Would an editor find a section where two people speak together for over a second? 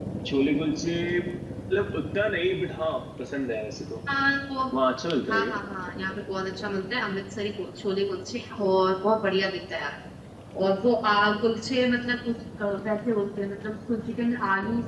No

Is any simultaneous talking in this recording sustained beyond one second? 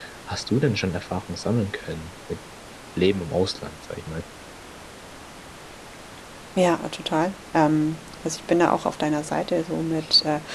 No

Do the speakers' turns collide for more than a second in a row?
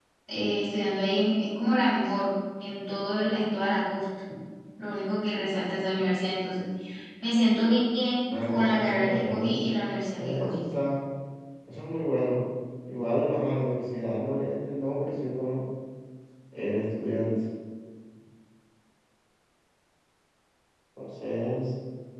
Yes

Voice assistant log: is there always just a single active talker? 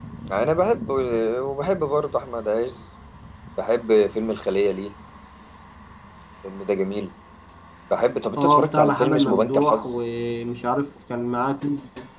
No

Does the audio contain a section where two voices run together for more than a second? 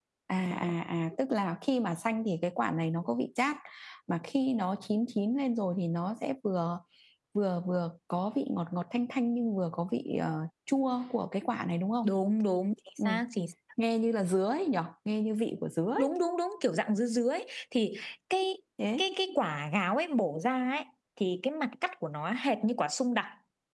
No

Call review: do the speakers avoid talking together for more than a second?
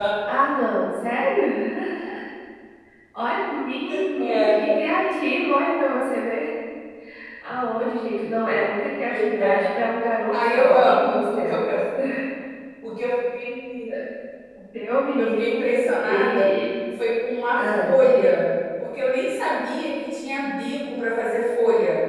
No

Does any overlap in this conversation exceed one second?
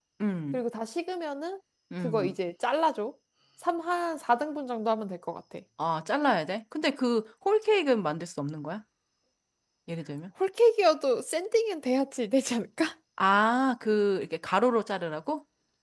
No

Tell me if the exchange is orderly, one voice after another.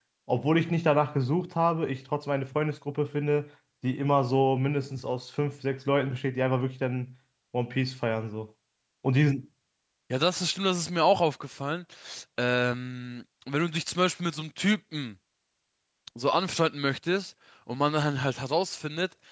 Yes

